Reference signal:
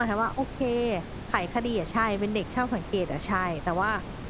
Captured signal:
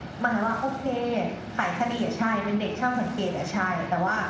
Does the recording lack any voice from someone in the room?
Yes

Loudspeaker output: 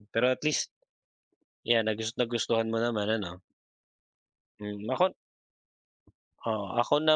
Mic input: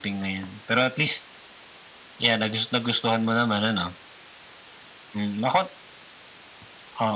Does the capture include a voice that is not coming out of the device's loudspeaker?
No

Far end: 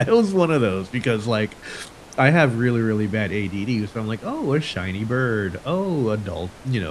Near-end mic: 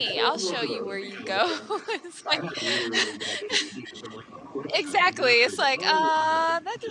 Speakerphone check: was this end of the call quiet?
No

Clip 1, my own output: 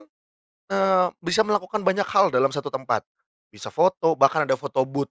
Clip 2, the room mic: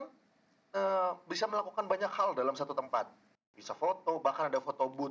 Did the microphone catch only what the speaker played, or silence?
Yes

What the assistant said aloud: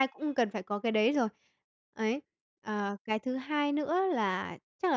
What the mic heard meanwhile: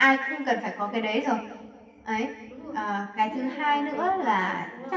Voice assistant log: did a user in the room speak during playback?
Yes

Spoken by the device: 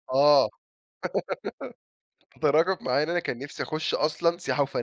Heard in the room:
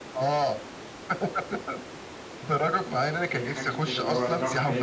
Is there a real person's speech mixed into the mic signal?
Yes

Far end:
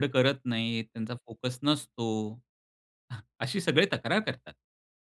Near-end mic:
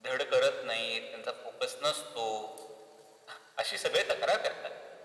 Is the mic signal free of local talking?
Yes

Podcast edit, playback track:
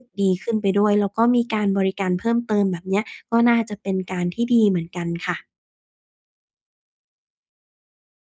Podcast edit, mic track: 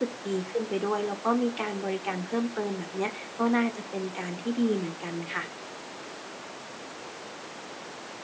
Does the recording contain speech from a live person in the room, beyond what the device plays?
No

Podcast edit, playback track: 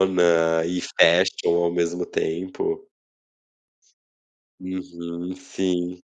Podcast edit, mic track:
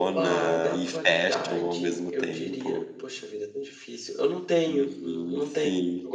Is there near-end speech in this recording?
Yes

